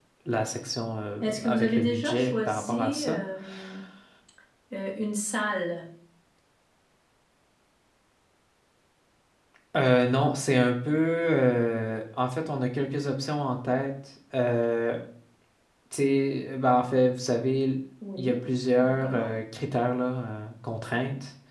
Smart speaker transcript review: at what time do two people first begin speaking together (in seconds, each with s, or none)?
1.2 s